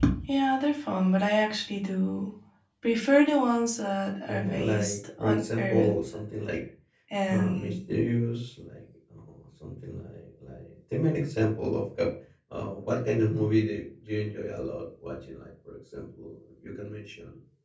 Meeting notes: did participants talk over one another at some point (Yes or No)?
Yes